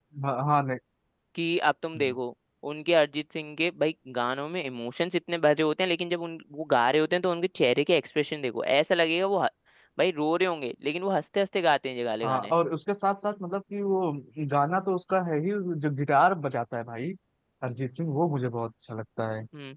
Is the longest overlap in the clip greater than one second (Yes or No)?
No